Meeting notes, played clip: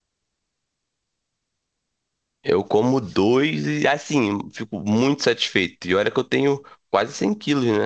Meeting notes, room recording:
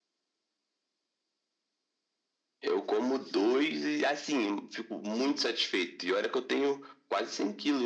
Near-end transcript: none

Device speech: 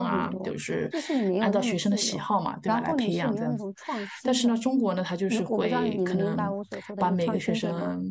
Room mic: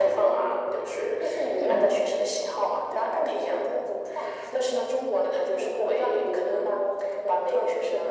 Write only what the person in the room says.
智力的。

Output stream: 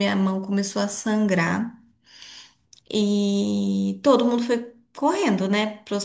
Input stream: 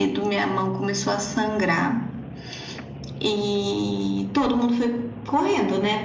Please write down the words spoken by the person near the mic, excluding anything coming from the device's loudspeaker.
none

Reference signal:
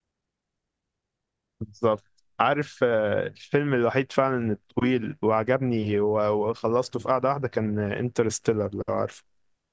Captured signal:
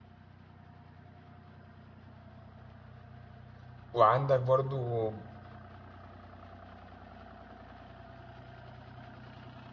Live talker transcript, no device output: وعندك برضو

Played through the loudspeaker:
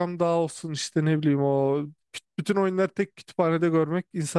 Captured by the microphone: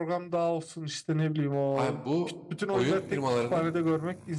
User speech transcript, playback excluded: Abi bu oyun firmalarının

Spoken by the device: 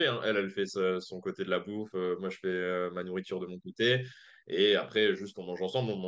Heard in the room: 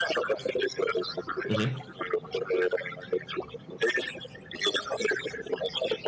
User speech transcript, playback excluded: Mhm.

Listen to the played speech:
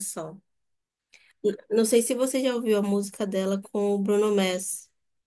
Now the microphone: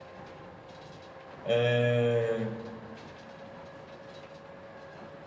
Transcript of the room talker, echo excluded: É,

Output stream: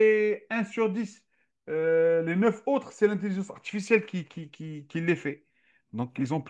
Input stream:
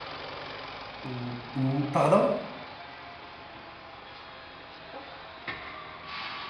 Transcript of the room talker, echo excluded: Ou, ou- pardon?

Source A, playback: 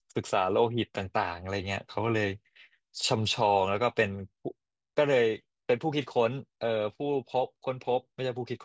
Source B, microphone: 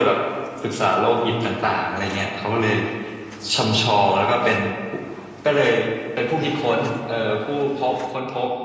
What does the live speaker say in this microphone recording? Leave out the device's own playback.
none

